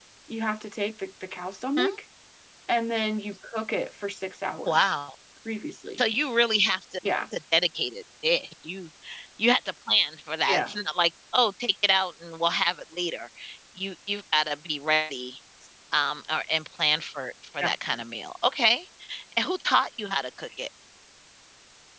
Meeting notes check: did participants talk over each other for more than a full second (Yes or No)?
No